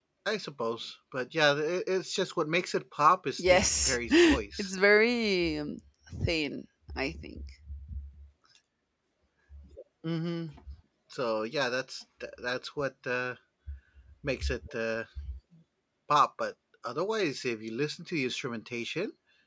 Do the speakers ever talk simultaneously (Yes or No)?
Yes